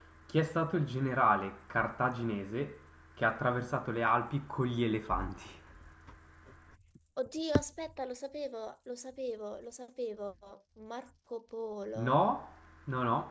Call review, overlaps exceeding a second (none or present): none